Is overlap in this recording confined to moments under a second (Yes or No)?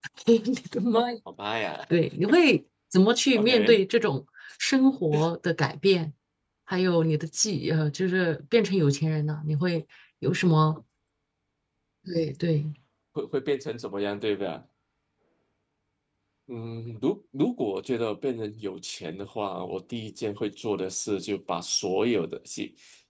Yes